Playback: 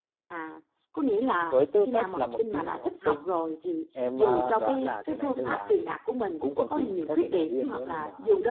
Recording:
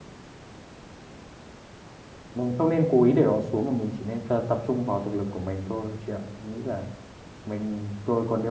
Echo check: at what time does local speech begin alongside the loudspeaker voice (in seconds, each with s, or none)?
2.3 s